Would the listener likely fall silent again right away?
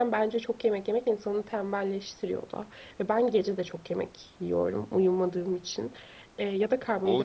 No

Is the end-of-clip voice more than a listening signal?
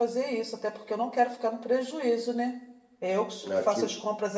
No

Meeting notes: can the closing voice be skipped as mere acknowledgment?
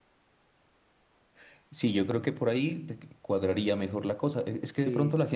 Yes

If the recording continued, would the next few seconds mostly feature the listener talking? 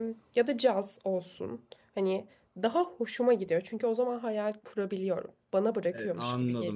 Yes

